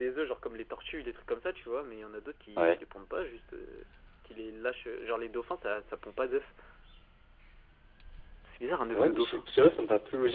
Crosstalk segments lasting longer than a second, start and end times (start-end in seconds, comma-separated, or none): none